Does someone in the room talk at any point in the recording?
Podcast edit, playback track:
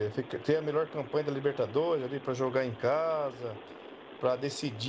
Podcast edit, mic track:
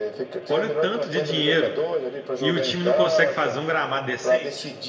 Yes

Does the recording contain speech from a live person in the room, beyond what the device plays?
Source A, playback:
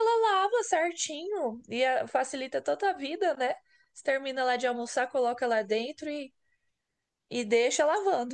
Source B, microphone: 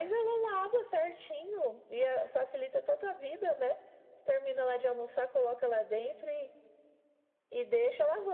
No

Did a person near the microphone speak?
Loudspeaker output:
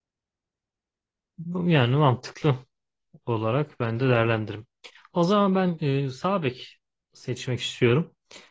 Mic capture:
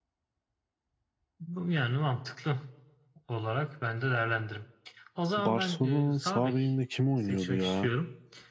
Yes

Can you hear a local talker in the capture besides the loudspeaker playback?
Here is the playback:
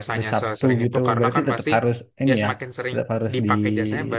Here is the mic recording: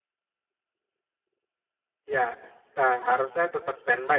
Yes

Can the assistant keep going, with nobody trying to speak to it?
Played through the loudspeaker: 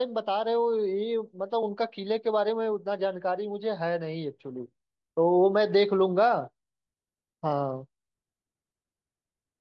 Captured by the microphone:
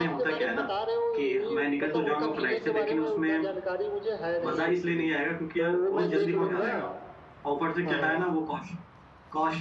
No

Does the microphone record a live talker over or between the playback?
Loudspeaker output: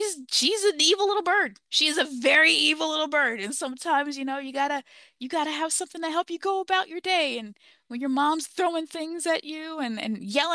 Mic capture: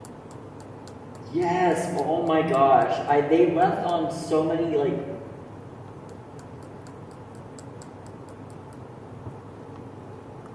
Yes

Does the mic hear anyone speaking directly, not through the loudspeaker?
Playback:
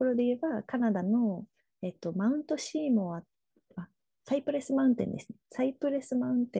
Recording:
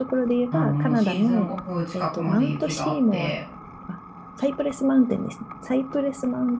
Yes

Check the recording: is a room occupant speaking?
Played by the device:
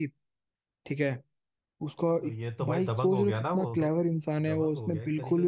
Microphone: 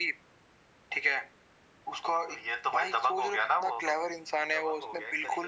No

